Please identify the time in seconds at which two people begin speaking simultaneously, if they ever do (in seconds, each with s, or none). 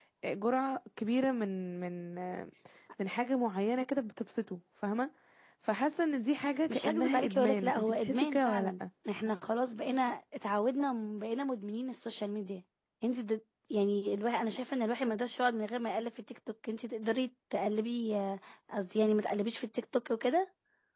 6.7 s